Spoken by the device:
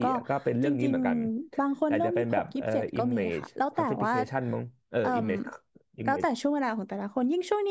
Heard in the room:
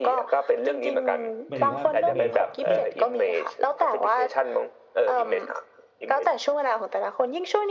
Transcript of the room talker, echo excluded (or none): หมายถึงว่าเบสเทียบ